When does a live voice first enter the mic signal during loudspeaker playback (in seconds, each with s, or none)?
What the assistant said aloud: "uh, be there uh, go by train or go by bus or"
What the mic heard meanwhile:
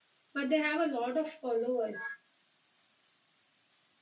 0.3 s